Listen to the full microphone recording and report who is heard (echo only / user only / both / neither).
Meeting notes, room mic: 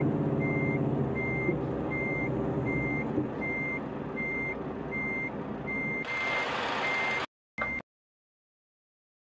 neither